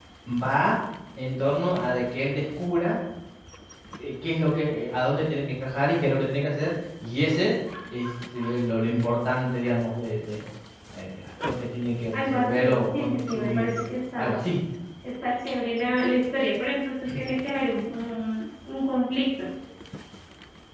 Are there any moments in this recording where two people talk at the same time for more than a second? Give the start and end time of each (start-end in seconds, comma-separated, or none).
12.1-13.6